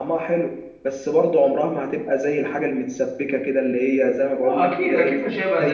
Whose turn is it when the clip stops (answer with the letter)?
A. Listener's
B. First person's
A